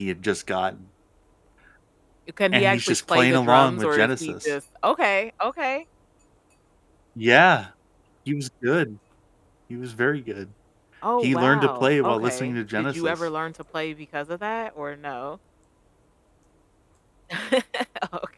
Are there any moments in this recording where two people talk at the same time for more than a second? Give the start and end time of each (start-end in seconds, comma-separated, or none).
2.5-4.5, 11.2-13.1